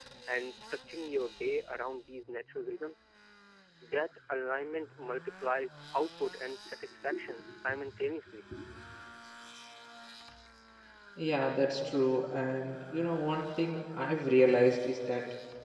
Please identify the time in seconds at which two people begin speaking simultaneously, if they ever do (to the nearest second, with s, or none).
none